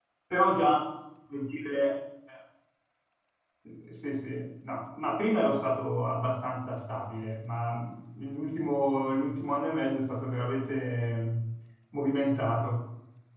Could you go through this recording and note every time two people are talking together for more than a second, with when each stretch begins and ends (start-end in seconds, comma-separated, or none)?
none